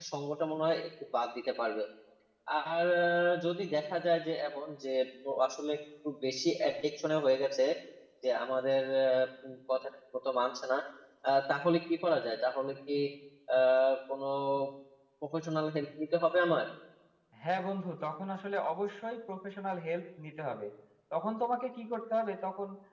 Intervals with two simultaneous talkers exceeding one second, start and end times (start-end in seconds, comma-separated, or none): none